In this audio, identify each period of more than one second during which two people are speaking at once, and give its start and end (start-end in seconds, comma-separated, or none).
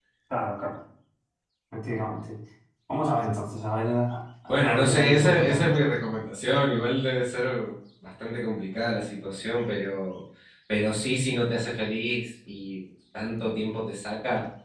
4.5-5.7